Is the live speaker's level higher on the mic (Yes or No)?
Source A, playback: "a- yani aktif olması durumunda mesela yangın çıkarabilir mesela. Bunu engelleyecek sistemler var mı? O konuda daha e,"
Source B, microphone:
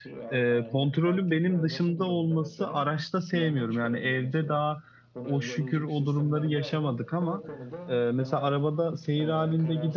Yes